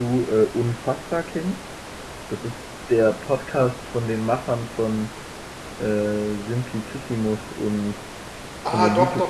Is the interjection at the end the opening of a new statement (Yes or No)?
Yes